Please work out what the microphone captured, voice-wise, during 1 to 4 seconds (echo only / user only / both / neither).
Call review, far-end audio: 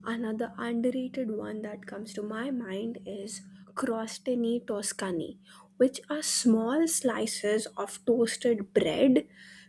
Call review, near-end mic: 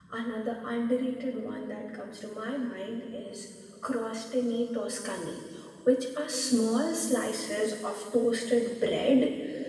echo only